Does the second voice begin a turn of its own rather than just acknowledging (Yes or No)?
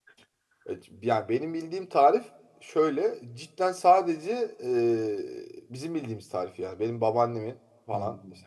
No